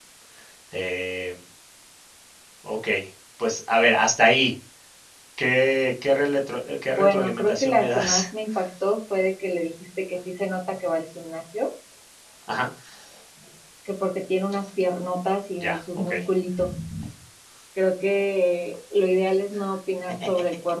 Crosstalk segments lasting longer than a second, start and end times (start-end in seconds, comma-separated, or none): 6.9-8.2